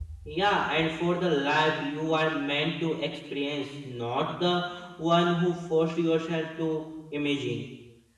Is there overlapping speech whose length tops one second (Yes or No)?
No